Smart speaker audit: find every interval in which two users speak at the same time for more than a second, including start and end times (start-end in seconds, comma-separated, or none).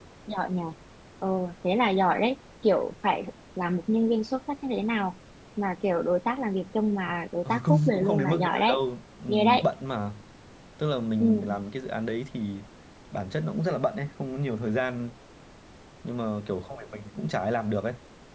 7.5-8.8